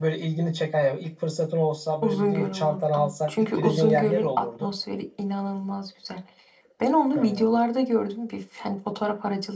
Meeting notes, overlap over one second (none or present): present